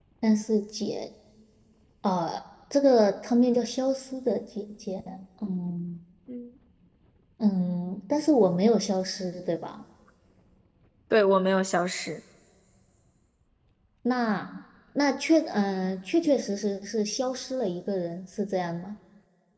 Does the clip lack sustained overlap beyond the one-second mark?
Yes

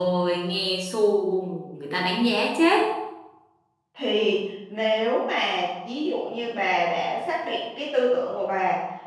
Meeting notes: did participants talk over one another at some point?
No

